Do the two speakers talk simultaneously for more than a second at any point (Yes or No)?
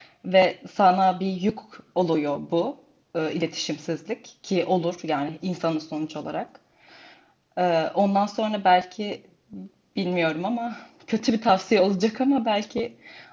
No